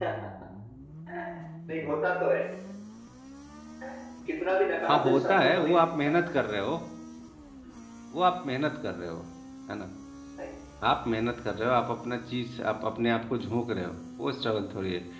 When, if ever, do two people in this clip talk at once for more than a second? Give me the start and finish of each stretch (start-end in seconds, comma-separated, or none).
4.9-6.1